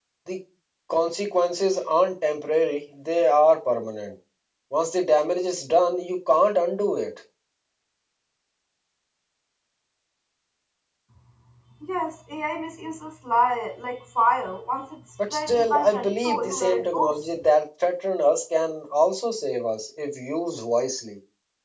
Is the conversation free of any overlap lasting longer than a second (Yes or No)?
No